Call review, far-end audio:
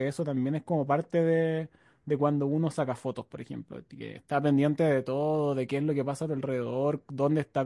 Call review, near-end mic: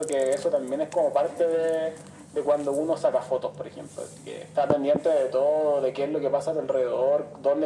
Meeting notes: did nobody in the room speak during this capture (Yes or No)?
Yes